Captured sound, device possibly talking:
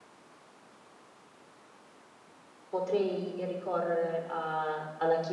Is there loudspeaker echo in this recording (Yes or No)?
No